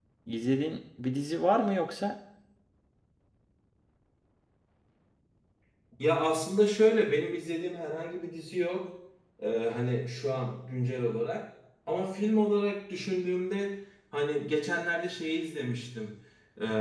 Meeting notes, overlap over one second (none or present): none